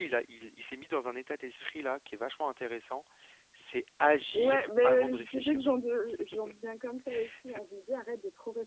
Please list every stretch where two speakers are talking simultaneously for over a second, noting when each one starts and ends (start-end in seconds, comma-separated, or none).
4.3-5.7